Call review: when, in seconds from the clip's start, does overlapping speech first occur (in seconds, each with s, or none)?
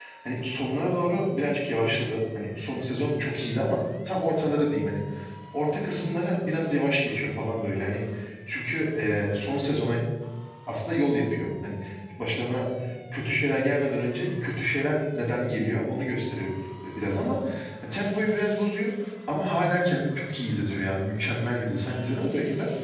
none